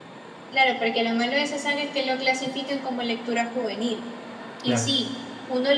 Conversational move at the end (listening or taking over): listening